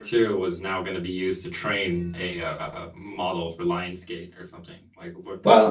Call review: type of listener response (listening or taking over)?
taking over